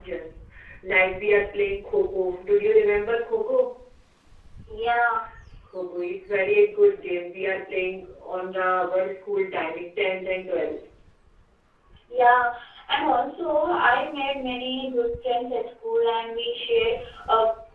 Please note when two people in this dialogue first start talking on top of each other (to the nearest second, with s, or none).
none